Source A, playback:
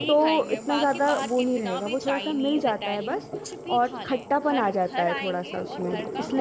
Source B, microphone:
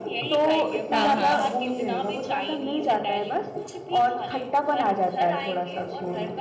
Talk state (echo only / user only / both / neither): both